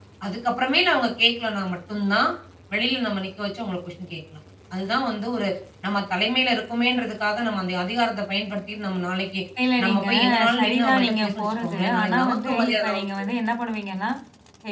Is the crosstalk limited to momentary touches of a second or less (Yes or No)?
No